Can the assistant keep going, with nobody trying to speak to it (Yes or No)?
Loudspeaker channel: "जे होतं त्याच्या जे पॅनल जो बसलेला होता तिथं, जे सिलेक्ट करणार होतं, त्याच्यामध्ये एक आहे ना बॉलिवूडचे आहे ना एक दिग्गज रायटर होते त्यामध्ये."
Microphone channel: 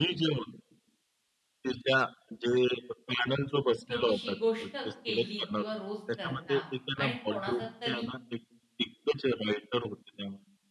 No